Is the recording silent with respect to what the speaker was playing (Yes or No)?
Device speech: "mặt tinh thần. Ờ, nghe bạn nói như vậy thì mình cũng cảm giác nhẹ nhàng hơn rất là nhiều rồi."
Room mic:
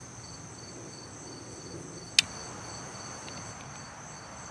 Yes